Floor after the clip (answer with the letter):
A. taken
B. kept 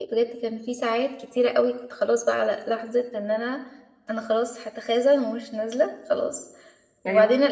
B